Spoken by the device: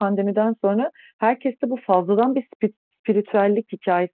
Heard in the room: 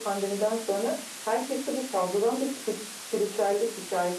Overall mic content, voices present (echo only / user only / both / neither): echo only